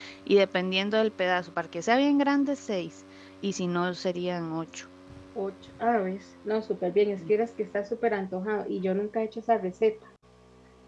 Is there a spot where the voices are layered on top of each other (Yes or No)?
No